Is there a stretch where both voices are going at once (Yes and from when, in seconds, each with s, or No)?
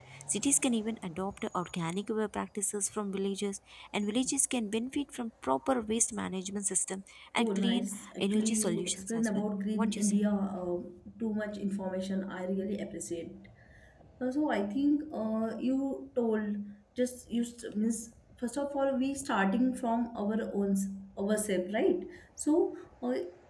Yes, from 7.4 s